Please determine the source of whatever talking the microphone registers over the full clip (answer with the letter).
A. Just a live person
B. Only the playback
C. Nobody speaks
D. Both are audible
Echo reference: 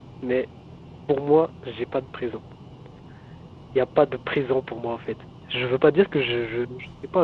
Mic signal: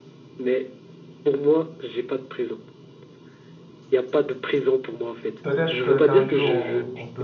D